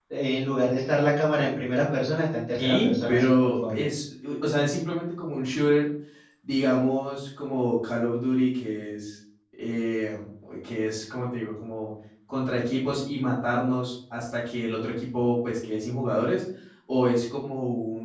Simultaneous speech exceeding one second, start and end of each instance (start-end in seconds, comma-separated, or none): 2.6-3.9